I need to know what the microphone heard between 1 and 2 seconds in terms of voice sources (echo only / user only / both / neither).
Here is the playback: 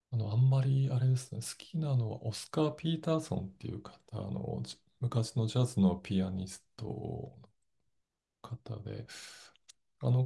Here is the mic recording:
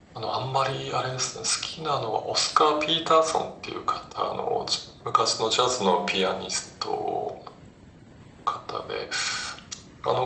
echo only